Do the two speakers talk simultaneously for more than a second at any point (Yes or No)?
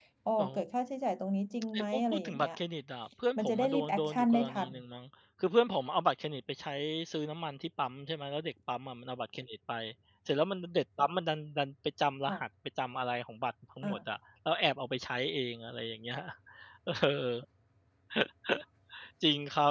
Yes